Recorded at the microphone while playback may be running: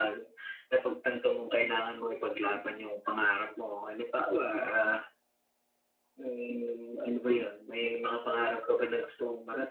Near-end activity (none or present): none